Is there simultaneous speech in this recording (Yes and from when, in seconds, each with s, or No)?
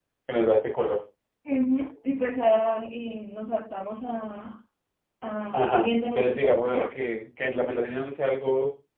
Yes, from 5.5 s